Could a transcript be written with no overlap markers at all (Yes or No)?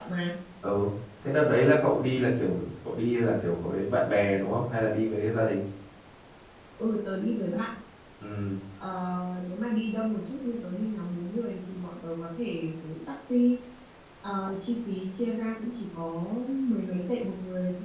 Yes